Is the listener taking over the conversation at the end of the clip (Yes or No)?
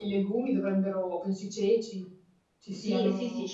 Yes